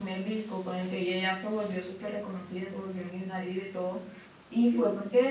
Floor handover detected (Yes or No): No